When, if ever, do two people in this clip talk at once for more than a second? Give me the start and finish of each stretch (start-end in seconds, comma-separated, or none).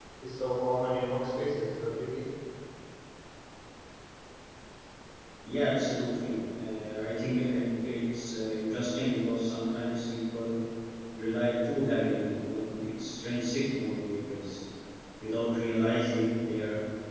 none